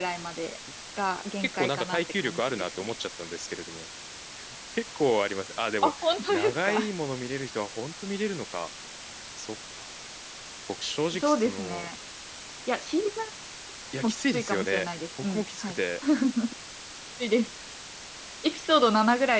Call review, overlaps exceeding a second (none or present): present